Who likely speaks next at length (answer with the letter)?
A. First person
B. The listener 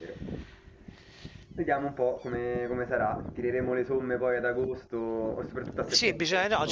B